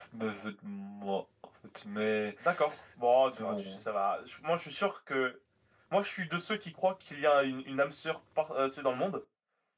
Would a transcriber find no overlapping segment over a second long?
Yes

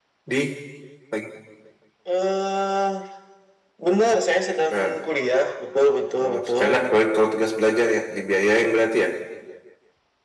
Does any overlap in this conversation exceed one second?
No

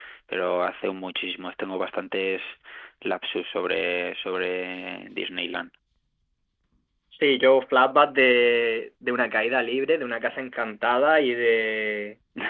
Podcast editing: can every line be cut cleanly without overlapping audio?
Yes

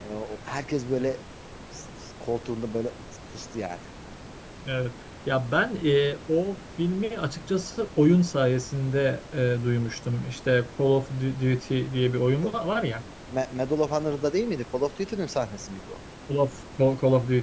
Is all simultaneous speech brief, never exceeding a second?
Yes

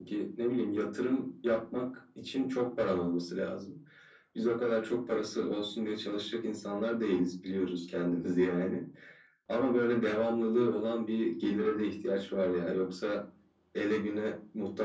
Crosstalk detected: No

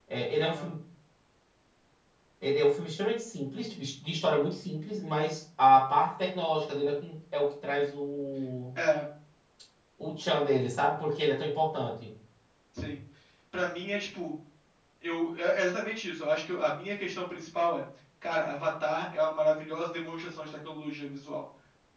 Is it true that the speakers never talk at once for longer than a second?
Yes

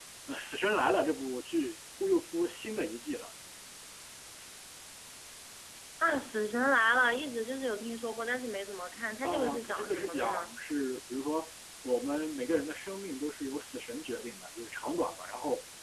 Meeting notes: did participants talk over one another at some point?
Yes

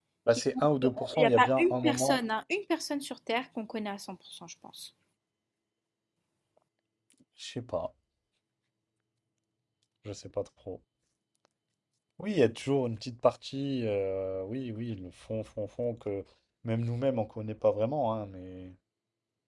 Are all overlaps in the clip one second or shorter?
No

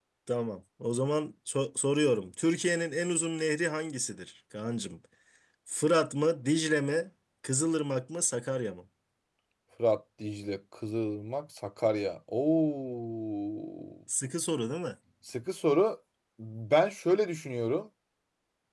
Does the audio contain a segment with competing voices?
No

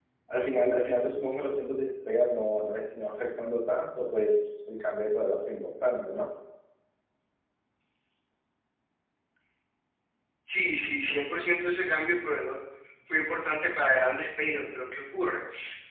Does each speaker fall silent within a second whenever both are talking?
Yes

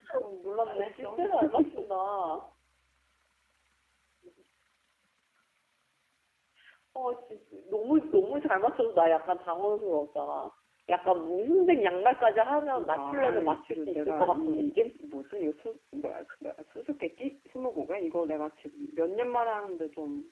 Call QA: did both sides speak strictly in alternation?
No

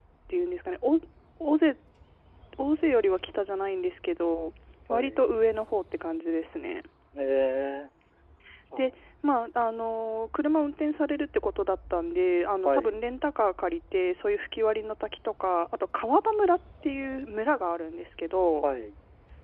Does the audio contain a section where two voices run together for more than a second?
No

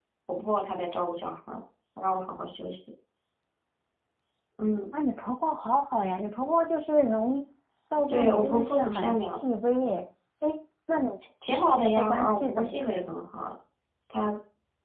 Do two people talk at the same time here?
Yes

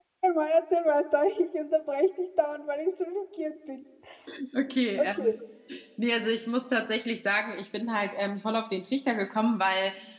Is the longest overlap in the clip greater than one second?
No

